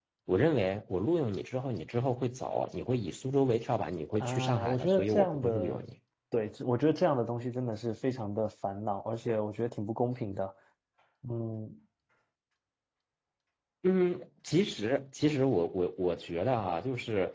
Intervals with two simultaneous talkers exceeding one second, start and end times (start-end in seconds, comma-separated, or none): 4.2-5.8